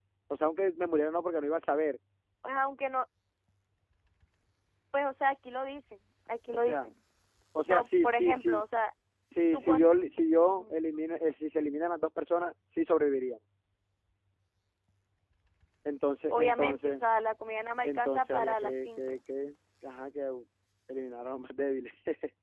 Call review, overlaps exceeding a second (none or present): present